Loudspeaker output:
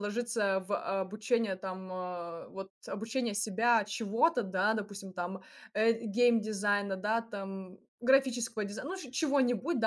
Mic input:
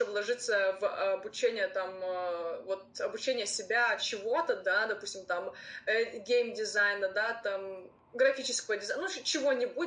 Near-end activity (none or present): none